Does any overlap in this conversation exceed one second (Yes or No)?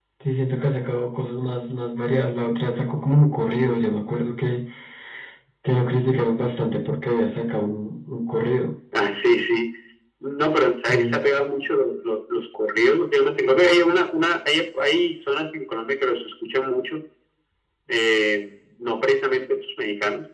No